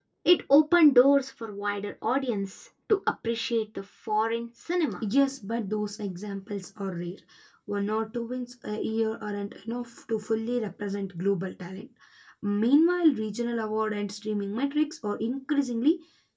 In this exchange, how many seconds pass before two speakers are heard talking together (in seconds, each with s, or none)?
none